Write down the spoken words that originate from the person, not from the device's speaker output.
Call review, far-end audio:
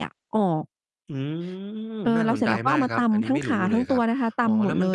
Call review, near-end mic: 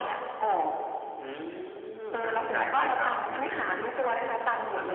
none

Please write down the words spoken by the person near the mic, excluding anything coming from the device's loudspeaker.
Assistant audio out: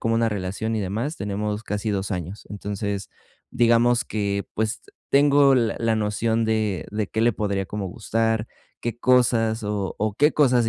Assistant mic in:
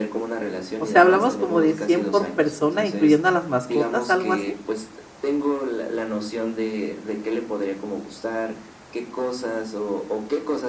O sea, hablamos como de 100 por persona, incluyendo a las mascotas, ¿algo así?

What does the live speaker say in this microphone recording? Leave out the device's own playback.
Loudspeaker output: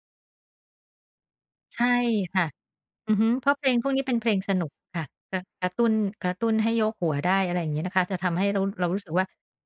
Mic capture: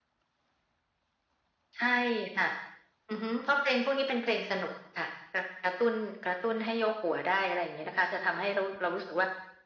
none

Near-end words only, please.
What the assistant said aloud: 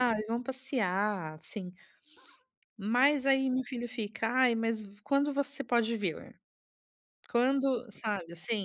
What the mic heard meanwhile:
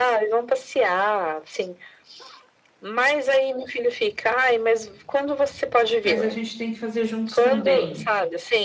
Mas a gente tem que fazer juntos também.

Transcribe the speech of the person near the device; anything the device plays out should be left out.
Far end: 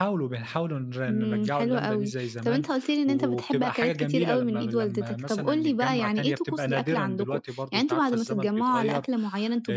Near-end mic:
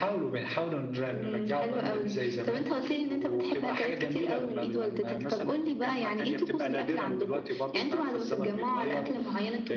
none

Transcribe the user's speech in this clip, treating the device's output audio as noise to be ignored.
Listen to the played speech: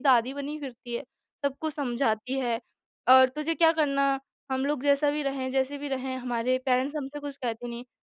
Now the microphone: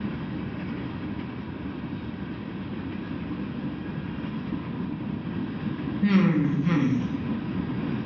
हुँ, हुँ।

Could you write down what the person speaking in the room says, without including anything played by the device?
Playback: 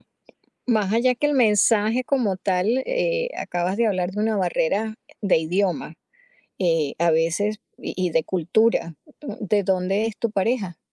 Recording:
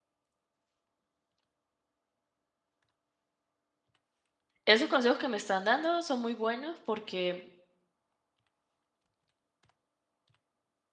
Esos consejos que me están dando son muy buenos porque,

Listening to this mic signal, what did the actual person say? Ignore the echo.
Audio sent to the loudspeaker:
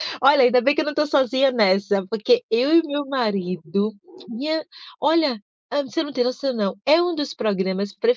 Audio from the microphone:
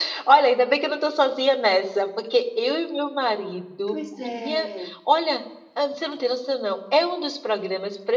Pois é.

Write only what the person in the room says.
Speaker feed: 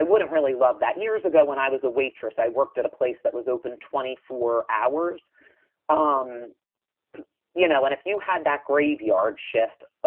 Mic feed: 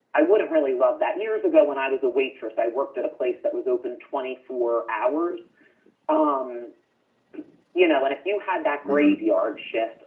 Mhm.

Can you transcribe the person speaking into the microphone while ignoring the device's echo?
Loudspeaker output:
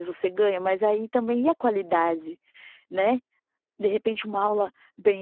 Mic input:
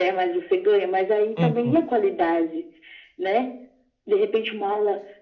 Uhum.

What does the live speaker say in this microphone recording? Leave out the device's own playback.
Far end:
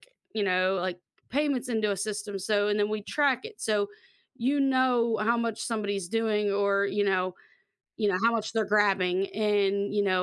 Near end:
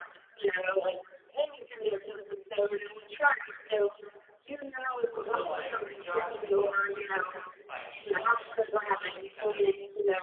So, like, the, job is responding to inquiries by email and you're supposed to kinda

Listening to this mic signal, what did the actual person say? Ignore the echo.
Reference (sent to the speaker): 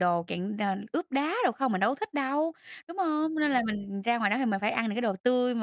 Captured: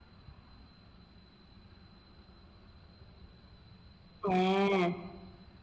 À.

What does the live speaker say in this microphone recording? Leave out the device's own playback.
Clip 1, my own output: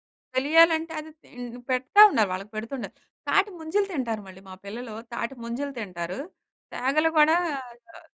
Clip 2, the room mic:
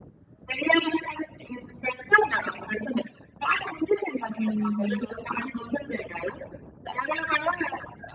హుహుహు.

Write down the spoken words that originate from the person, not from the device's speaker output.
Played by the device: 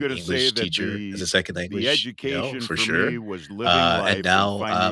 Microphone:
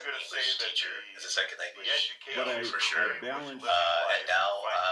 but I I balanced,

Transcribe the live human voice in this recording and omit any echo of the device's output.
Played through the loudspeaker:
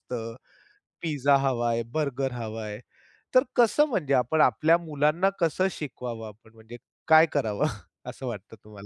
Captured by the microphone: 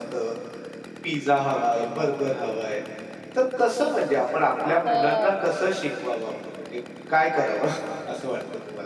हो.

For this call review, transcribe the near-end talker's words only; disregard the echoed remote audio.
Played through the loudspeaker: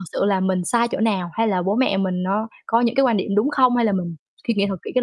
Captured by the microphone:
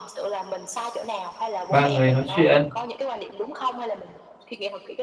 ba người nói chuyện

